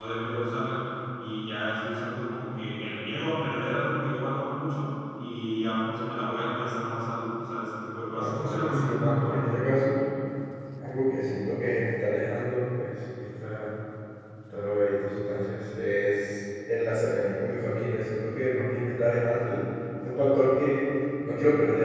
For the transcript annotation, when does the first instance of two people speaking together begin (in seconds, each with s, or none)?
8.1 s